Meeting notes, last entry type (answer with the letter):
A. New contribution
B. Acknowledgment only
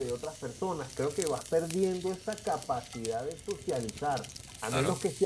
B